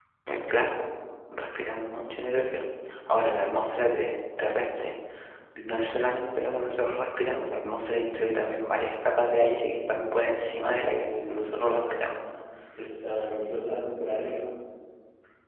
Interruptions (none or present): present